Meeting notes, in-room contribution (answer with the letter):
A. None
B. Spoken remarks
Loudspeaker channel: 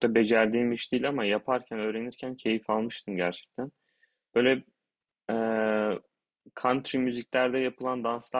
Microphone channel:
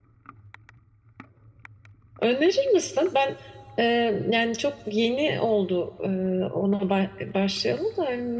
B